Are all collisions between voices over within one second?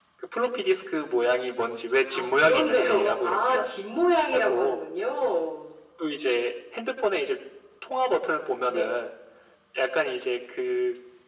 No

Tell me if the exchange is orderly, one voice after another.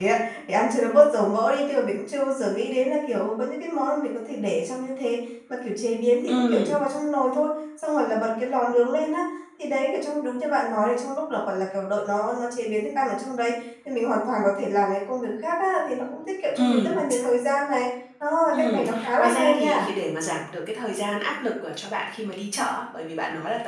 No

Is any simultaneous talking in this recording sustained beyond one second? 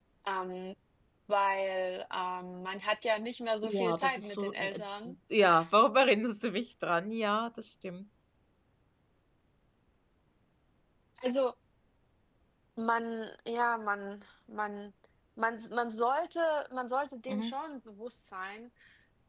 Yes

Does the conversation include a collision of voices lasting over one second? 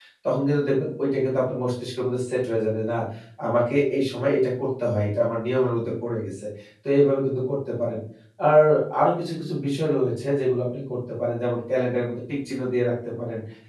No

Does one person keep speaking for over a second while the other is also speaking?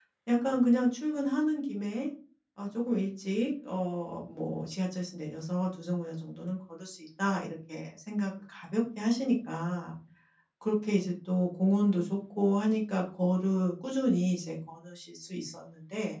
No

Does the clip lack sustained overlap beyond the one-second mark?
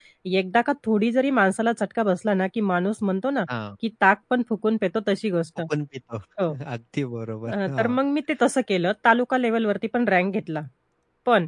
Yes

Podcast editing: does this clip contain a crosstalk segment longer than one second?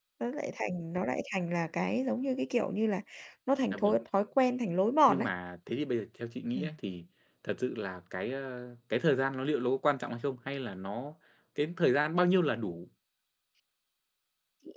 No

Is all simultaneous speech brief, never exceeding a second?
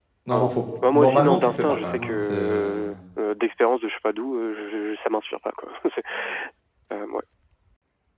No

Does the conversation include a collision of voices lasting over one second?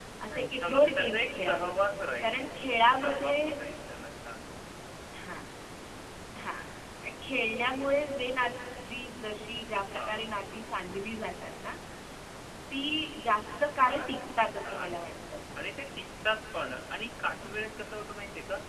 Yes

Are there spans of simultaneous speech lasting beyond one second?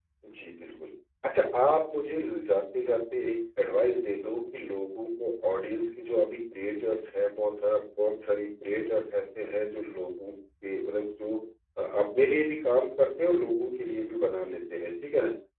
No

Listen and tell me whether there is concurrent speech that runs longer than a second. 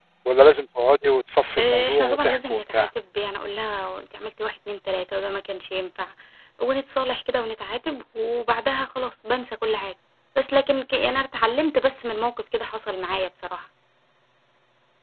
Yes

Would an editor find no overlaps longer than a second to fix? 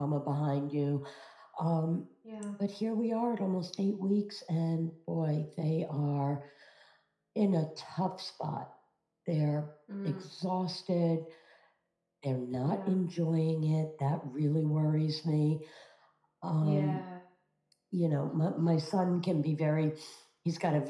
Yes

